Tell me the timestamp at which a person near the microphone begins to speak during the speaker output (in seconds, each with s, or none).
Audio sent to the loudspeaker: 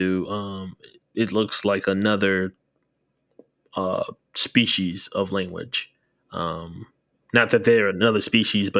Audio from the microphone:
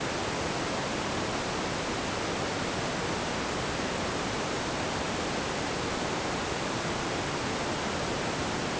none